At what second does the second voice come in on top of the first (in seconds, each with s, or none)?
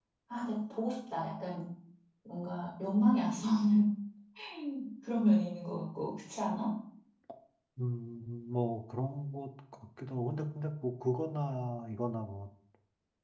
none